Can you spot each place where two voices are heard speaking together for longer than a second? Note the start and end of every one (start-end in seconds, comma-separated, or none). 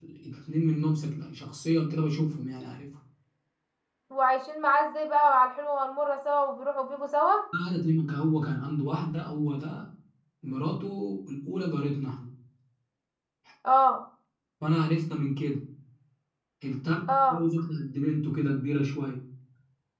none